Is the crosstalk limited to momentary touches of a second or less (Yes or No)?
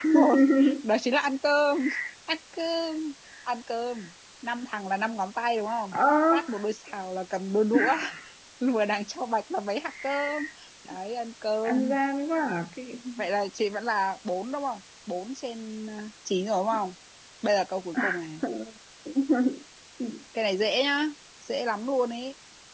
Yes